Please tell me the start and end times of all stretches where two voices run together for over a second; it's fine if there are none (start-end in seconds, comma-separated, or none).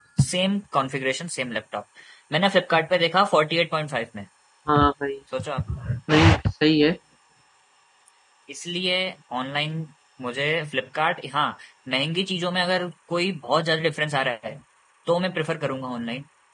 none